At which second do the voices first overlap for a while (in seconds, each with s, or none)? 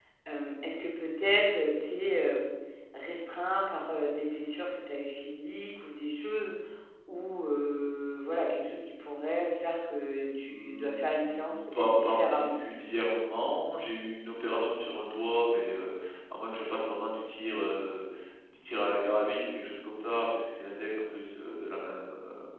10.5 s